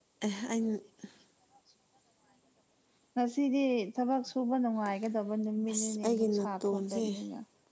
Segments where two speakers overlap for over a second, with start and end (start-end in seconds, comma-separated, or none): 5.7-7.1